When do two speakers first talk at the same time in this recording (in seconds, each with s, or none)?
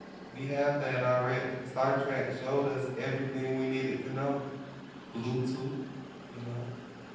none